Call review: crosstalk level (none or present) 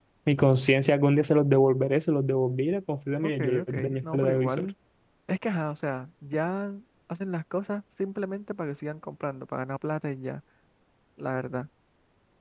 present